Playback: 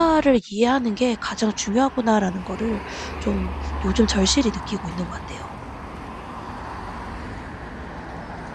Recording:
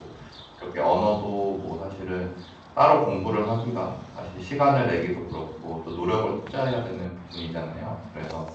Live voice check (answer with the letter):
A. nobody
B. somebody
B